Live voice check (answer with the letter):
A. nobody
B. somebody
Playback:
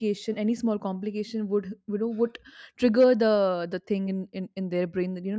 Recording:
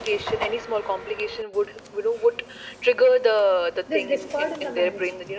B